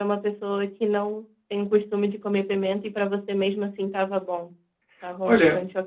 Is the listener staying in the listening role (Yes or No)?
No